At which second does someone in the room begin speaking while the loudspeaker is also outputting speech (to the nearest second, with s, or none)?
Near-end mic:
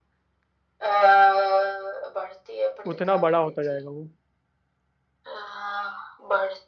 3 s